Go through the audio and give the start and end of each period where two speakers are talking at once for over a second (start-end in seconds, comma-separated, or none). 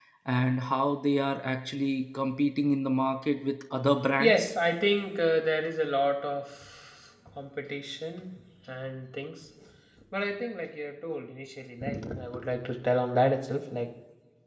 none